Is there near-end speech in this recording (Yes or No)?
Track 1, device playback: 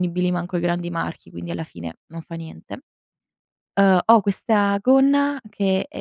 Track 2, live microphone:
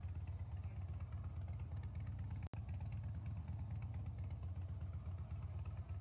No